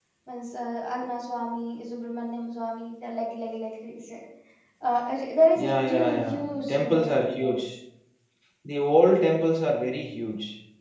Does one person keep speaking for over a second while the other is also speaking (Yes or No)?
Yes